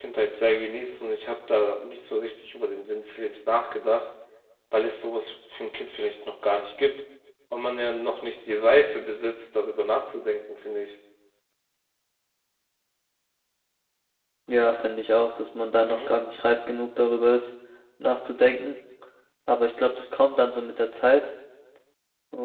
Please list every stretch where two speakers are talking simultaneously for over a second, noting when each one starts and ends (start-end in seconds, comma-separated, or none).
none